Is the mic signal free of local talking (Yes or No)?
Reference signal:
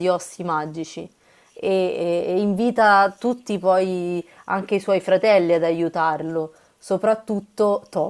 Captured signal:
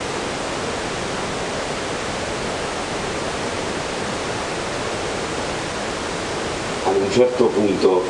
No